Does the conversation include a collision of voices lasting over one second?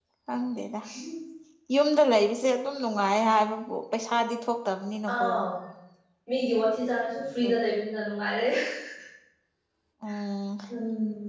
No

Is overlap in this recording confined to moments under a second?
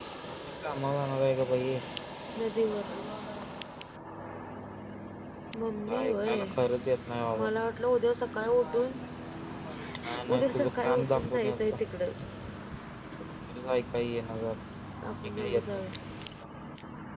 No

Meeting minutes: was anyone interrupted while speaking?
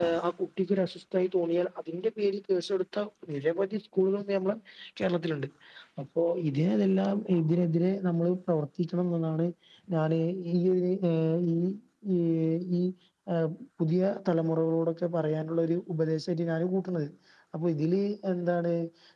No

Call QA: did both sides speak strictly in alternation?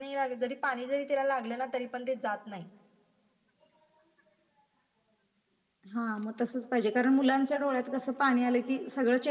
Yes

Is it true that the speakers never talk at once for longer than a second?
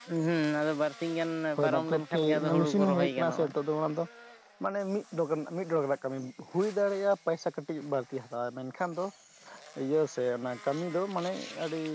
No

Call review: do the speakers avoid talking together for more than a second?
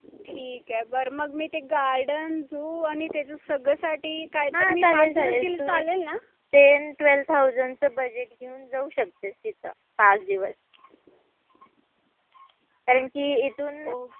No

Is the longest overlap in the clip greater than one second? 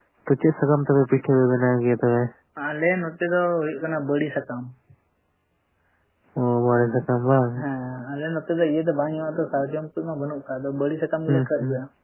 No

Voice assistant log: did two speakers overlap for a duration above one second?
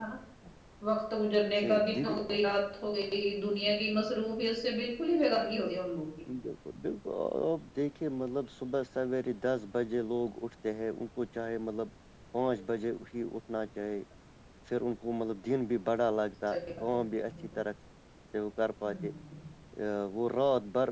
No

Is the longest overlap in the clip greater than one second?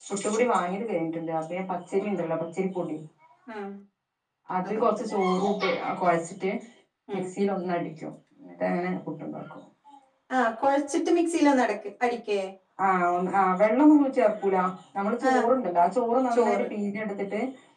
No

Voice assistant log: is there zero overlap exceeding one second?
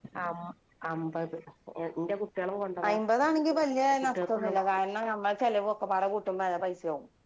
Yes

